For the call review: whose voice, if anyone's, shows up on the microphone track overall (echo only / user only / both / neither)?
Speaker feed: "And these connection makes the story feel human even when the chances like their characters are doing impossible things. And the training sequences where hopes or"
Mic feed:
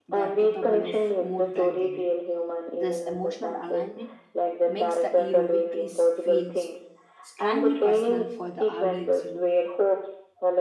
both